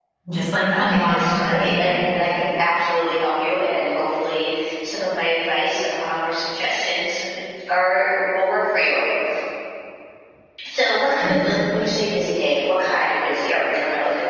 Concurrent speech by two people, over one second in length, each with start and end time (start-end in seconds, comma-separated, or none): 0.7-2.0